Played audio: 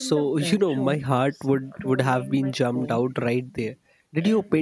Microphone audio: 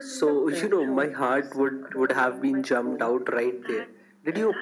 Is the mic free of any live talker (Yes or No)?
No